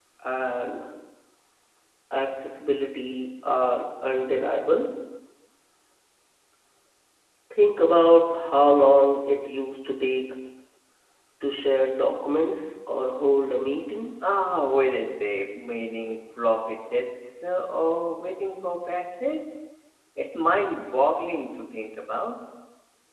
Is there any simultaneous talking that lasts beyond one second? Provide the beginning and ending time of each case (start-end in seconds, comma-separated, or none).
none